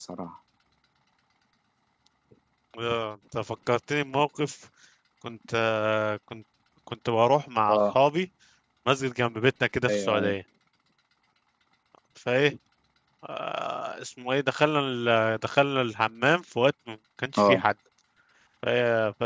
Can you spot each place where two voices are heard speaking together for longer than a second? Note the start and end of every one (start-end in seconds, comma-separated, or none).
none